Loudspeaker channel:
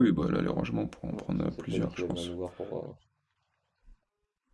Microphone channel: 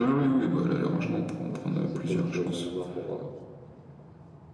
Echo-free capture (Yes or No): No